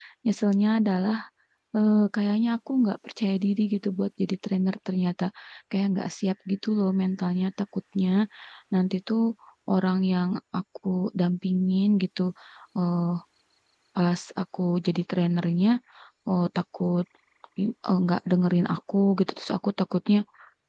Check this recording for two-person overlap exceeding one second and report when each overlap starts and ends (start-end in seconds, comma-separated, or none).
none